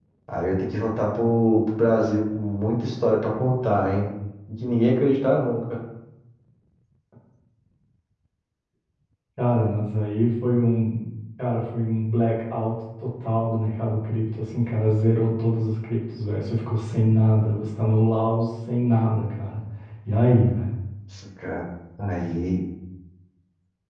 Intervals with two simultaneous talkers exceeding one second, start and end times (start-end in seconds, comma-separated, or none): none